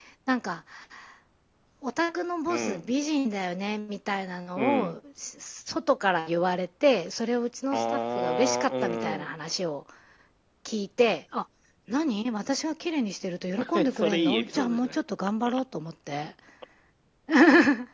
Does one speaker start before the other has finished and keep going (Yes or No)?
Yes